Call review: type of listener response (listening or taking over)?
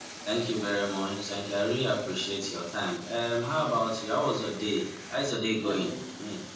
taking over